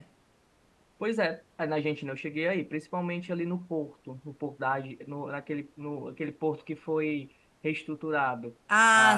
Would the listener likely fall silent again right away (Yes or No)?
No